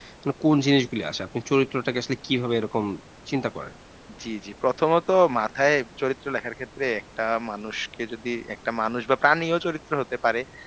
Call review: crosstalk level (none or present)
none